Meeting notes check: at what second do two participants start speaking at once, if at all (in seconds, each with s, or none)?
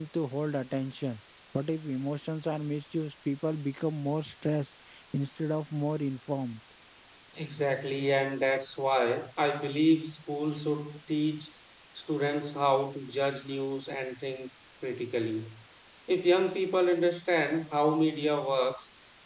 none